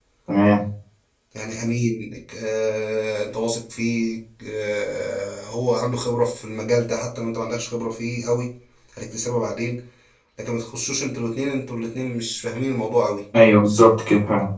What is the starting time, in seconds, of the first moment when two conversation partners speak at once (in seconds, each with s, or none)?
none